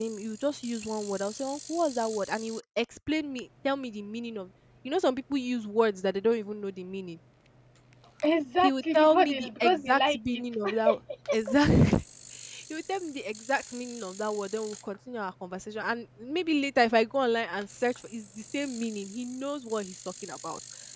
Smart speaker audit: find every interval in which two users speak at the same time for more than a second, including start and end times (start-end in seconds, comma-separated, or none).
8.6-10.4